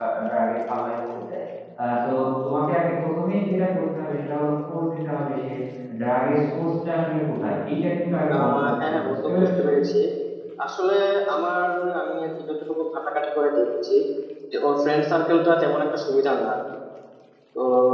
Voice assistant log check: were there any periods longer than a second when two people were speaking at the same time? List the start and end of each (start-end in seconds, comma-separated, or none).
8.3-9.6